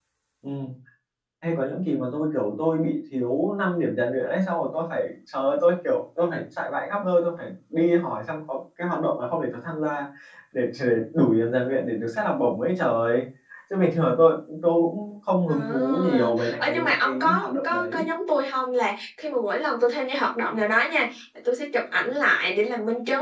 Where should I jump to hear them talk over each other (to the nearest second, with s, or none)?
15 s